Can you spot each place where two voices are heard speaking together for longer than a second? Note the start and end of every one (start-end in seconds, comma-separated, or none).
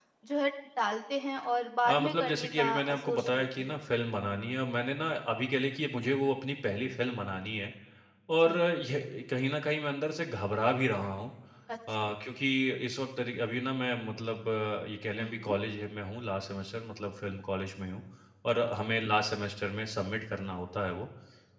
1.9-3.8